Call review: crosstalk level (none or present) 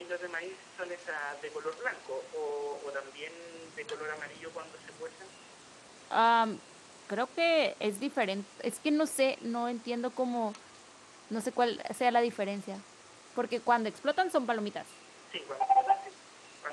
none